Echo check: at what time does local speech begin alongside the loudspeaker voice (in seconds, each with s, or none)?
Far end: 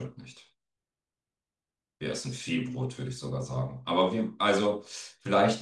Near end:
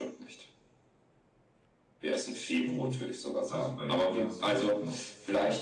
2.6 s